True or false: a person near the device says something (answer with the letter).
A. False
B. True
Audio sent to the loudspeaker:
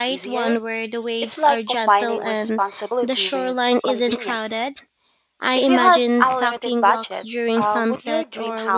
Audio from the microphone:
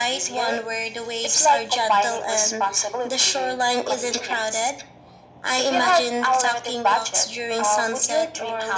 A